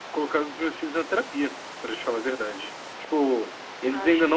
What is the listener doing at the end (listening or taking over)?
listening